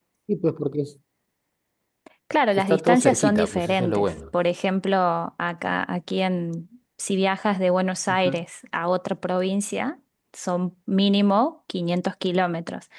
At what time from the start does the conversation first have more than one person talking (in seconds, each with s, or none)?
2.6 s